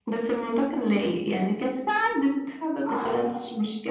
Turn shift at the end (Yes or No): Yes